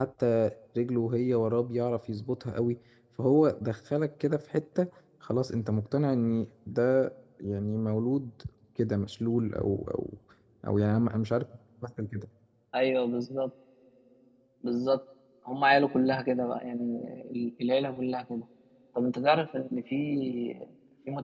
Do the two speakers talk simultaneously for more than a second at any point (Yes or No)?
No